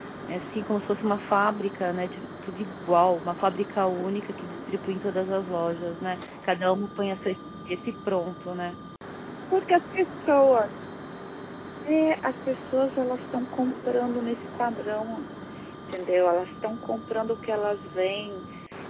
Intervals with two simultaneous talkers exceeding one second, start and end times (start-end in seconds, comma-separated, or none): none